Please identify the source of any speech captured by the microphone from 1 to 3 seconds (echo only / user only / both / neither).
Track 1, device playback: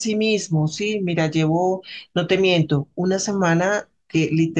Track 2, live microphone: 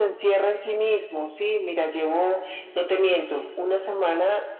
echo only